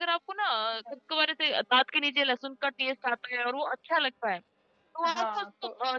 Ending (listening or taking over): listening